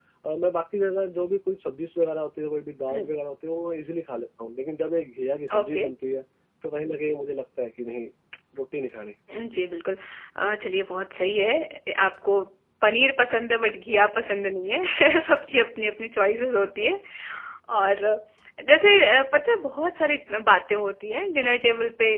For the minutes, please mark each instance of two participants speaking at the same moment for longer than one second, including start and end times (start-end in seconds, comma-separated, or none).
none